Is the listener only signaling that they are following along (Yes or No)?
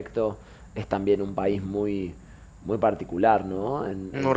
Yes